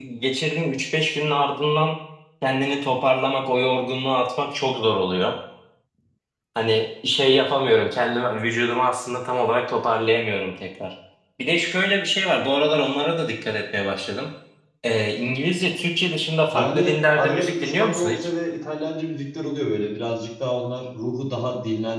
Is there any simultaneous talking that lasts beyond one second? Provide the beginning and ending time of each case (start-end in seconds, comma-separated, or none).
16.5-18.3